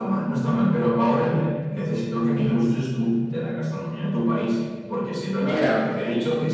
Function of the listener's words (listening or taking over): listening